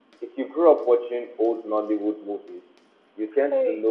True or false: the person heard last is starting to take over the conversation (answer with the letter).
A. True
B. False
B